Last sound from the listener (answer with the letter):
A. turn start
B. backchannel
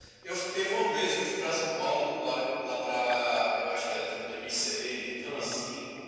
B